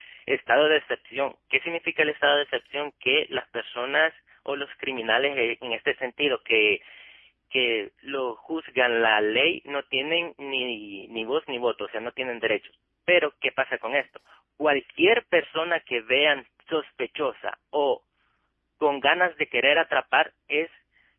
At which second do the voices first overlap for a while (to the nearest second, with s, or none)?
none